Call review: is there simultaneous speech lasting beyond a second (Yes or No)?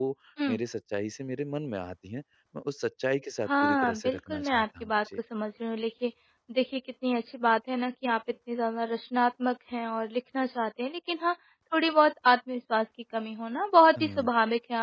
Yes